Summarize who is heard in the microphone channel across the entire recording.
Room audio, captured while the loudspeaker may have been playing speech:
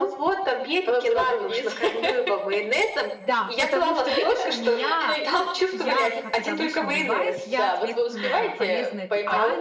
both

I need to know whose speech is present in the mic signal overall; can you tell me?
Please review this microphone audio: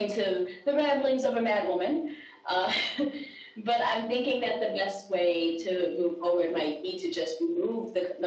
echo only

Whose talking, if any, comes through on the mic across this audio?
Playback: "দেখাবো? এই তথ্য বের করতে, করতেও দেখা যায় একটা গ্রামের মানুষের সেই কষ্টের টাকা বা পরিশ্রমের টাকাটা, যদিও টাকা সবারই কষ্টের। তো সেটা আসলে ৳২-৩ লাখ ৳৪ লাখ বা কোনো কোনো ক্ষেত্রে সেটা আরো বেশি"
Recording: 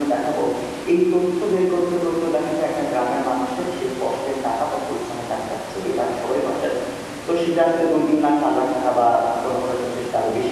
echo only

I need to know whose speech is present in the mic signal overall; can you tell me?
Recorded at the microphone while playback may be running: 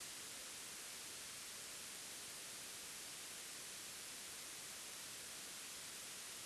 neither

